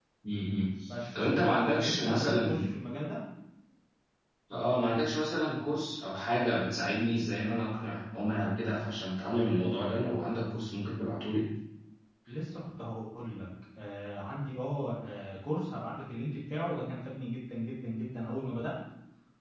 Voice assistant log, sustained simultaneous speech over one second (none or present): present